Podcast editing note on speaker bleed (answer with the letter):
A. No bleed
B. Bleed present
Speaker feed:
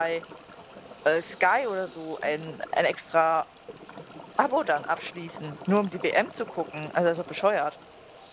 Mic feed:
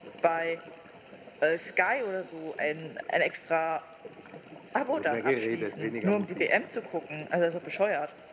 B